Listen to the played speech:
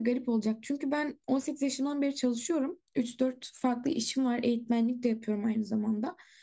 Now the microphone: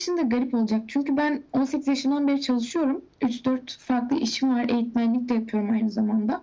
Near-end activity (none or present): none